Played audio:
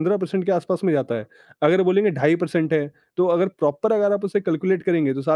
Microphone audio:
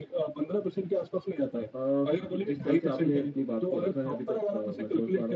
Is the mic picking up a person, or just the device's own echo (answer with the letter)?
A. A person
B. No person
A